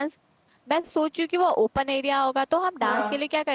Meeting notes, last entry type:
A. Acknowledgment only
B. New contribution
A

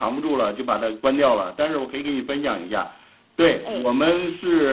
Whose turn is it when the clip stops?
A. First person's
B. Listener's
A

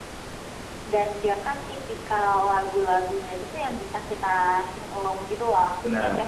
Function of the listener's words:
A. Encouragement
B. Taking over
B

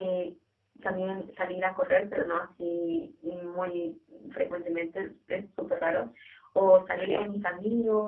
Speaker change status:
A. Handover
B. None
B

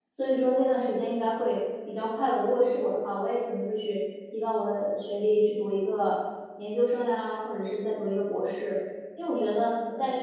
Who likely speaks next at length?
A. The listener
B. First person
B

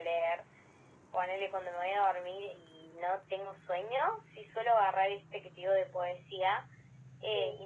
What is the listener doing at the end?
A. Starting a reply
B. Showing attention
B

